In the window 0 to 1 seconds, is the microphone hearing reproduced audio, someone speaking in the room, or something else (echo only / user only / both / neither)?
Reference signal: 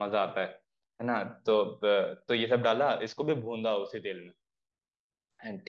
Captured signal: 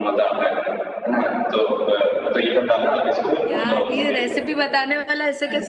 echo only